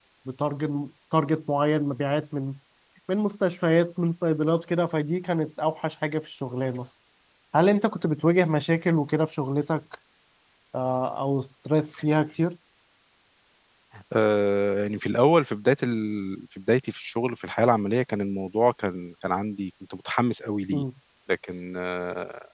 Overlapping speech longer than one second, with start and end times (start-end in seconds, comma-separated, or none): none